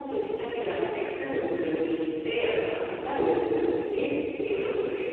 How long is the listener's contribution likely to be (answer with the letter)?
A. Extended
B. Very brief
B